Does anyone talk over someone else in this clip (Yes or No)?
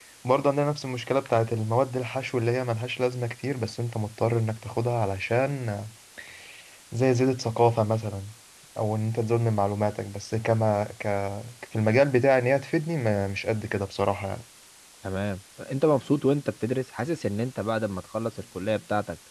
No